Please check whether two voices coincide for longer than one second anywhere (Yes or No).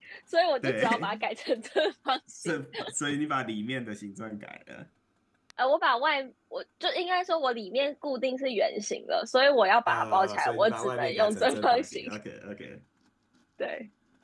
Yes